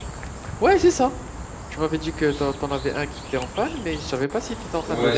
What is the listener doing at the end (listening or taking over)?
taking over